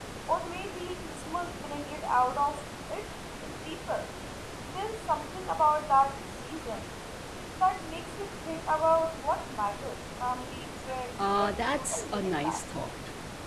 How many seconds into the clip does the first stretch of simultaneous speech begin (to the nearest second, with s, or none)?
11 s